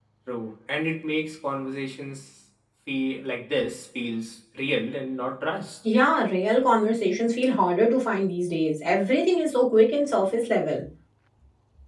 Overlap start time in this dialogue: none

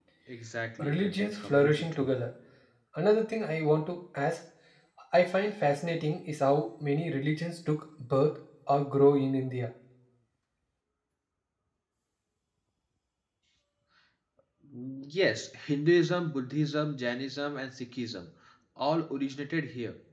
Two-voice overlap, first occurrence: 0.9 s

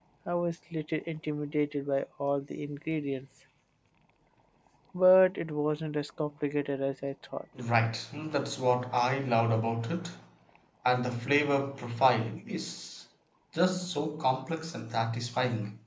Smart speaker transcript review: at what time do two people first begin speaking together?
none

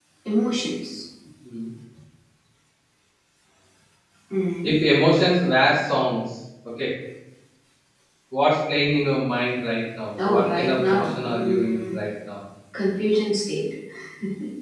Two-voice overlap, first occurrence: 10.2 s

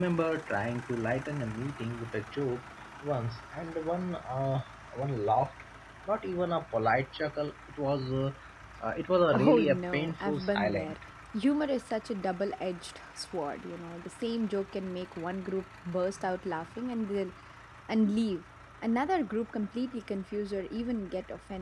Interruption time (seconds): 9.3 s

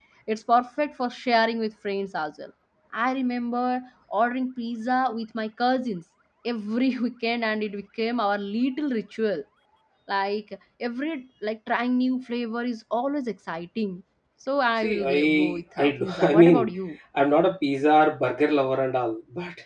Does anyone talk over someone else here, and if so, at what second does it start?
14.8 s

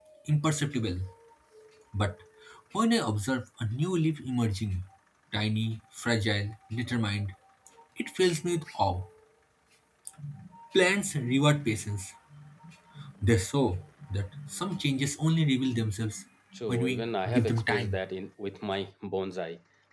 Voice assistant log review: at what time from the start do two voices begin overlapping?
16.7 s

